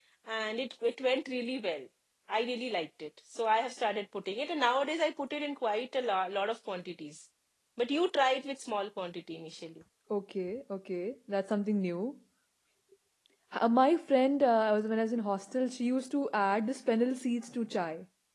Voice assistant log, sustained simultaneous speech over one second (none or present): none